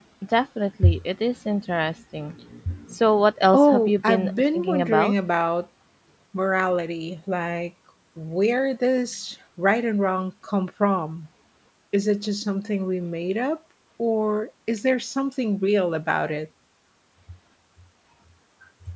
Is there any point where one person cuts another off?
Yes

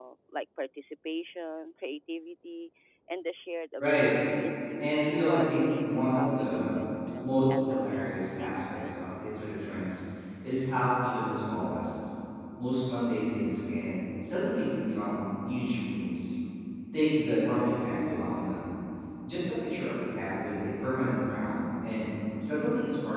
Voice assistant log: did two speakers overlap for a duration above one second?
Yes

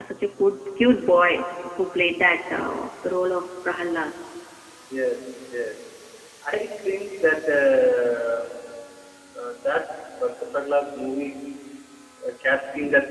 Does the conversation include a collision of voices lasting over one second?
No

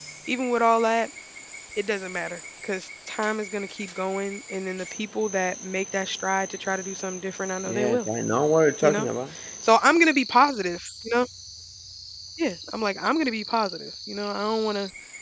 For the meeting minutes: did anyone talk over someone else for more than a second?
No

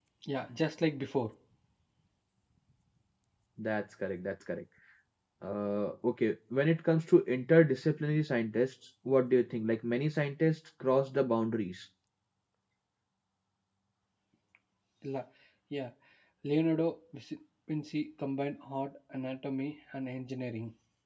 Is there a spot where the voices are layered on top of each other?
No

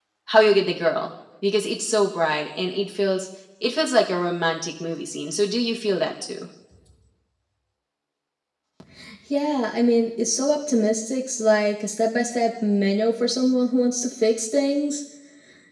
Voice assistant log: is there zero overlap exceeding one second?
Yes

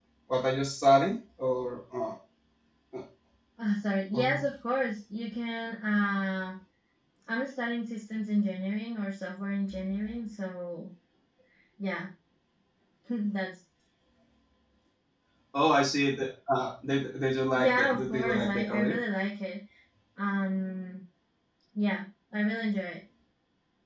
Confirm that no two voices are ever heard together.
No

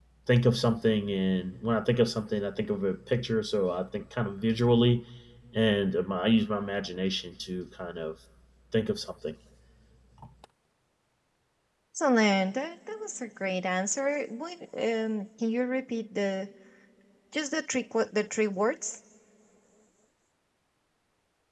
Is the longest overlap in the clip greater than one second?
No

